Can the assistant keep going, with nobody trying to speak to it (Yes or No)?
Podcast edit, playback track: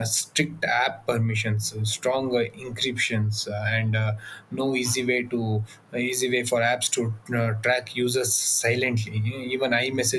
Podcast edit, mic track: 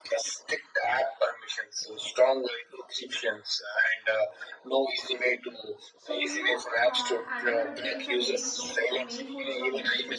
No